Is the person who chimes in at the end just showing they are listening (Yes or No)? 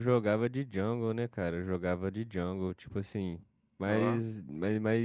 Yes